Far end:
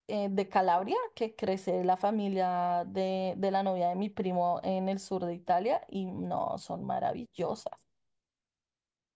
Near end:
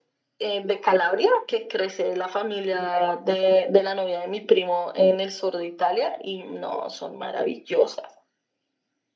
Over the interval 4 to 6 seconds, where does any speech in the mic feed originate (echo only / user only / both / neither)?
echo only